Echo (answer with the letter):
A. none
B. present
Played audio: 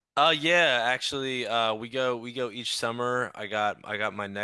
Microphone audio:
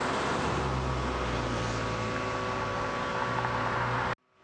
A